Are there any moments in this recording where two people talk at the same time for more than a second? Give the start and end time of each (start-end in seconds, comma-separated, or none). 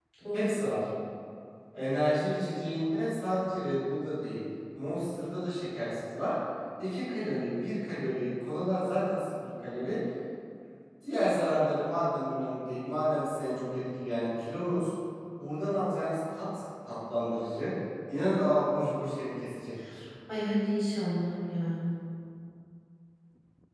none